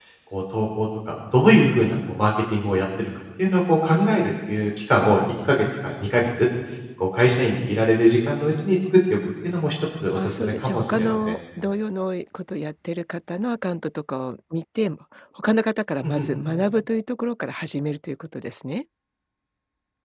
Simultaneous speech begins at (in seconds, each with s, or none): 10.1 s